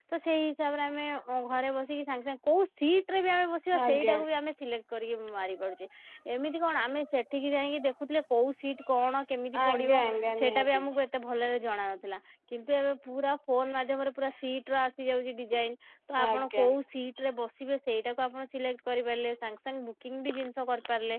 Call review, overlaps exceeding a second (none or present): none